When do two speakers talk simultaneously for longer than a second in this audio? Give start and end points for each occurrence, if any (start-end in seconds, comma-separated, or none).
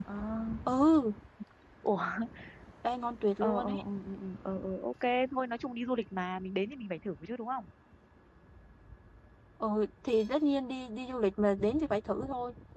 none